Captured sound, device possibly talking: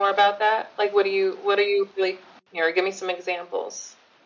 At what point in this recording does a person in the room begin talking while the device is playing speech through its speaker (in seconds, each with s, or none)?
none